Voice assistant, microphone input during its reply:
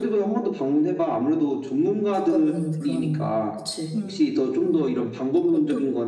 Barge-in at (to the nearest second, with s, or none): 4 s